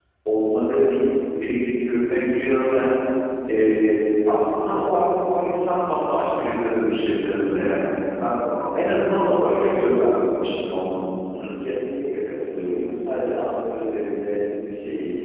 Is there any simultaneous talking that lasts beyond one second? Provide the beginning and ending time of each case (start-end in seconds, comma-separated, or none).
none